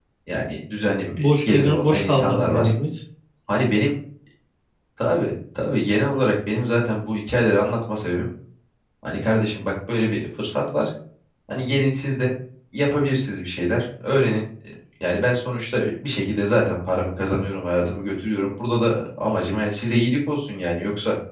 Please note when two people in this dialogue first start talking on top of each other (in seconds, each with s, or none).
1.2 s